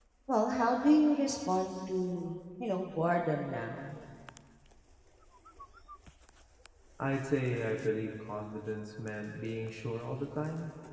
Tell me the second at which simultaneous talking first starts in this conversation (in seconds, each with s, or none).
none